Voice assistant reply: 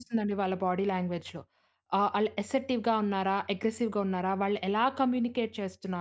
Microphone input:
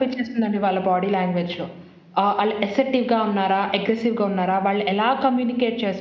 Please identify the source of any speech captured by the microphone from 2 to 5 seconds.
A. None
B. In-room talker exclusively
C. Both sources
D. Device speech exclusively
D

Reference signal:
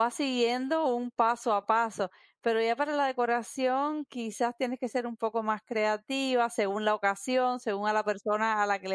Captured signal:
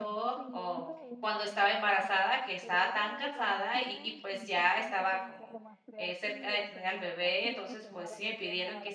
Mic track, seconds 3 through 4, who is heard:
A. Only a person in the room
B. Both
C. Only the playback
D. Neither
B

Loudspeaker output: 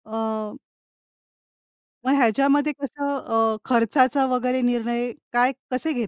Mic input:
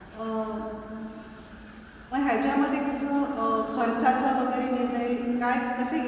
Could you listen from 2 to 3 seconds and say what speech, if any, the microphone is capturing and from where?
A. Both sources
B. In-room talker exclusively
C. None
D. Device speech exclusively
D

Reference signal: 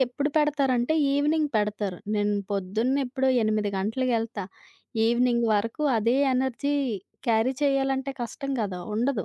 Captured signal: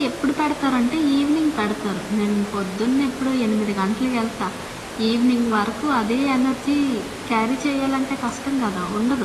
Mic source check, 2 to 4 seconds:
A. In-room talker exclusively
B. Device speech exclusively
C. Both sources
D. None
B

